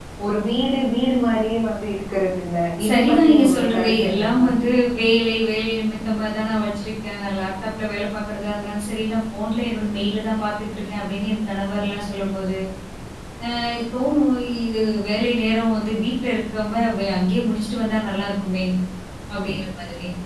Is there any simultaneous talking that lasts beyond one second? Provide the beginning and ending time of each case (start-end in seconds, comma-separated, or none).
2.9-4.4